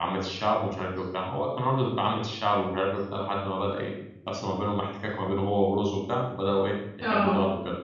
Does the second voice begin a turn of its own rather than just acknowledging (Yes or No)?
No